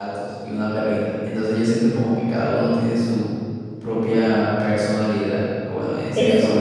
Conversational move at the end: listening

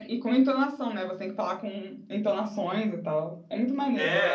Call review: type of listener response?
taking over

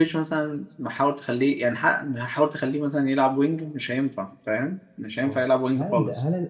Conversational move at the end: taking over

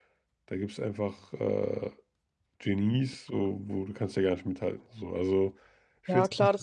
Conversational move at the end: taking over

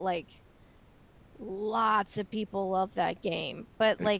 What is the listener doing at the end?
listening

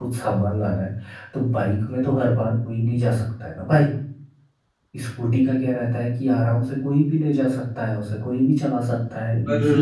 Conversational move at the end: taking over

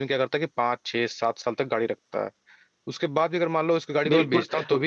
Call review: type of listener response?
taking over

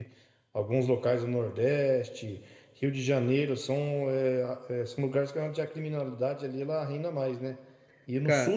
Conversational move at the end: listening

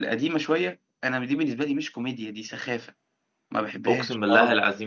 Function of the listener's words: taking over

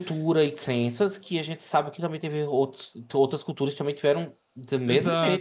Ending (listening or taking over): taking over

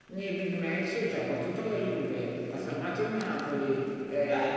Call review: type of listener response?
listening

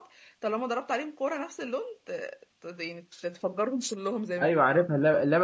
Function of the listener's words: taking over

